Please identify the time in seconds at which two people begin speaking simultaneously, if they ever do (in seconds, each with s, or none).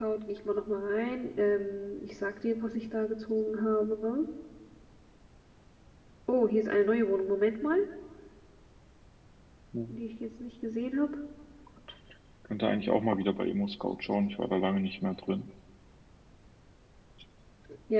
none